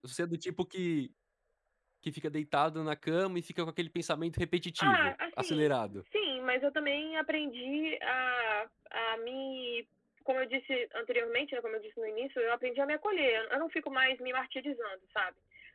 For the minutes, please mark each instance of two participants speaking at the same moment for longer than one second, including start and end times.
4.8-6.0

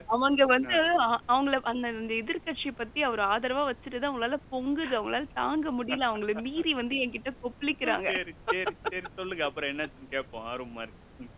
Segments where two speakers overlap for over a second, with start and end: none

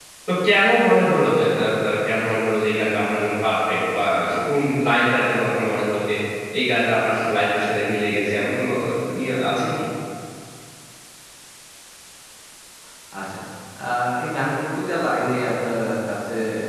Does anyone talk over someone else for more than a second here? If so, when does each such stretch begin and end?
none

